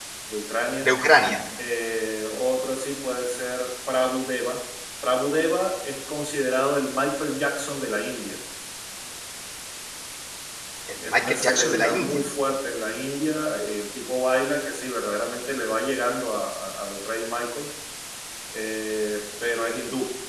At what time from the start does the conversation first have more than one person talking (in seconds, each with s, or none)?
11.0 s